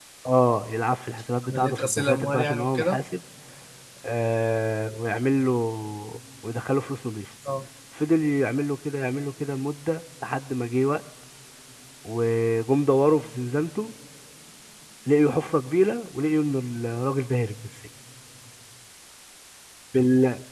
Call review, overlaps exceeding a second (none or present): present